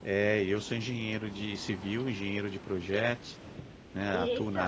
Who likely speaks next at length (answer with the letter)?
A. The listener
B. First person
B